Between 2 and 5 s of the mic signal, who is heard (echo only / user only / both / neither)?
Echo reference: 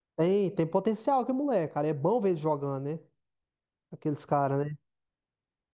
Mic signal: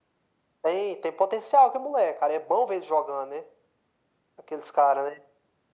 echo only